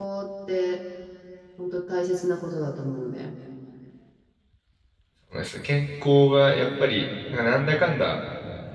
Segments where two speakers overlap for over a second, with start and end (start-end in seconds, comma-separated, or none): none